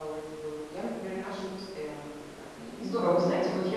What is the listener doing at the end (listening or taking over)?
taking over